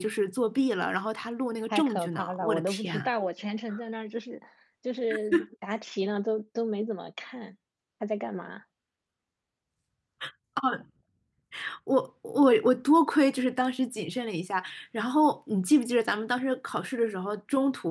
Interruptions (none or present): present